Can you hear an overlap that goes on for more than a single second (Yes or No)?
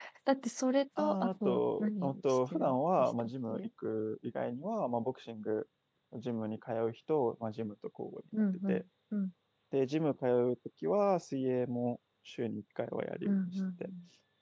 Yes